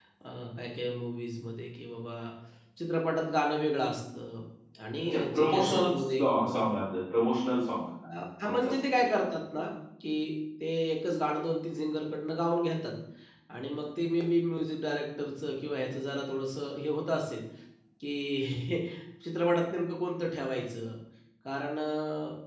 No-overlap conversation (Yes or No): No